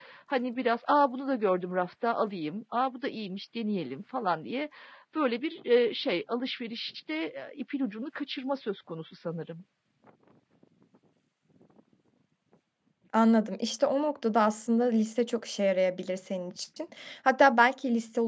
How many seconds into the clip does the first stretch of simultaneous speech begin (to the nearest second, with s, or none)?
none